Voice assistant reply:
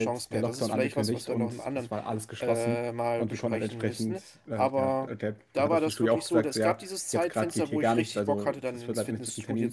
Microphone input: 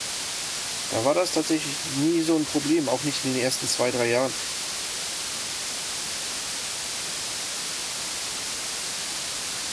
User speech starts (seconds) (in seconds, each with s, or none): 0.9 s